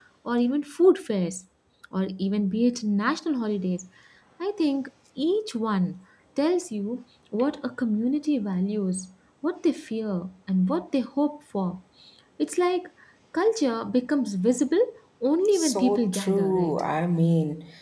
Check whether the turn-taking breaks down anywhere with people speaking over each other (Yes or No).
Yes